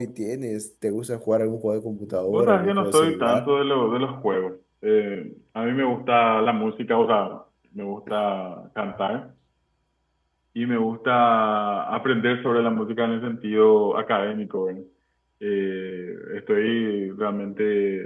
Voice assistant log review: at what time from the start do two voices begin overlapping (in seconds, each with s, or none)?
2.3 s